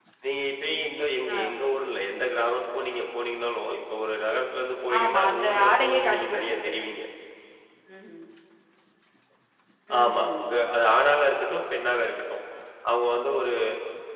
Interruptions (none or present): present